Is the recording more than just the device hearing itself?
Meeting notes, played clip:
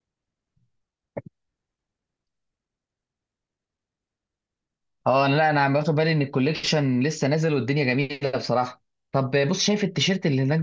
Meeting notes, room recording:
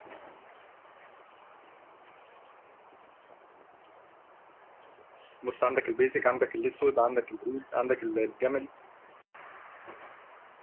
Yes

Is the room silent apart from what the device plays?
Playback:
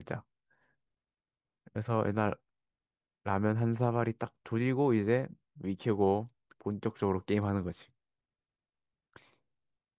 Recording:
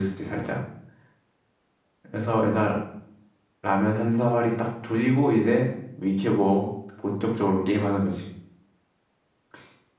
Yes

